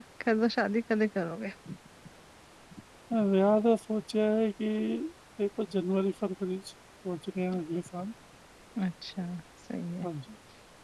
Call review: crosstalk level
none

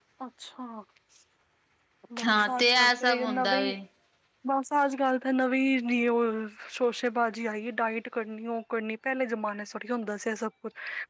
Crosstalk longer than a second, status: present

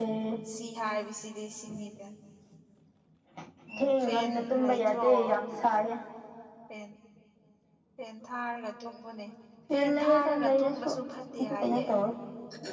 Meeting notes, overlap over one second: present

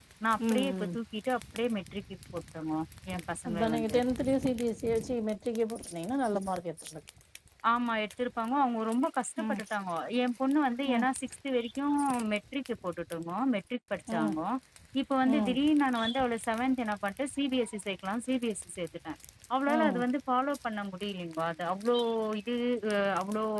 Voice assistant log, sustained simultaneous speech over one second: none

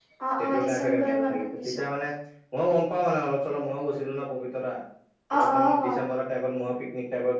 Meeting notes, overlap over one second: present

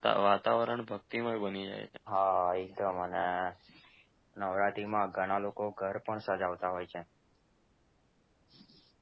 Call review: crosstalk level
none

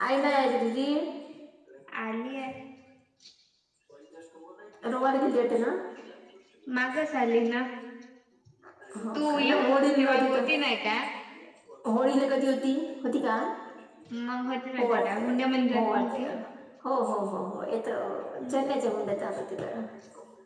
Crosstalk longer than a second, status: present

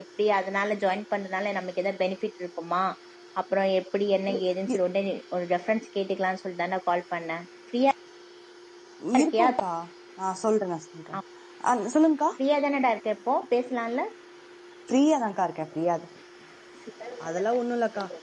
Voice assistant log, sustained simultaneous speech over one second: none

